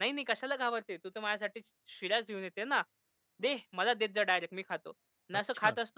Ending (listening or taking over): listening